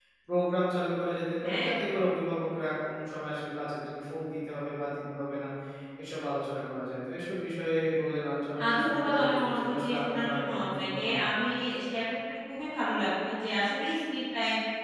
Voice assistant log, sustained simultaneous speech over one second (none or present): present